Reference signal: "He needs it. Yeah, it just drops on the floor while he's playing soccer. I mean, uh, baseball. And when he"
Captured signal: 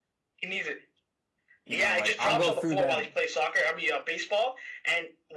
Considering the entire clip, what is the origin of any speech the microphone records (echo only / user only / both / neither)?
both